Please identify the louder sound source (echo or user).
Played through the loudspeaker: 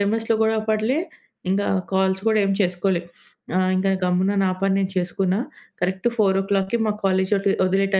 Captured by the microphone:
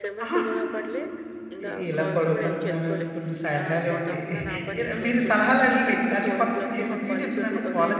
user